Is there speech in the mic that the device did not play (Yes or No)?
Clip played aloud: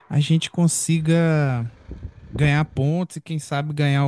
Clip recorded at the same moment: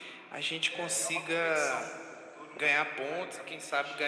Yes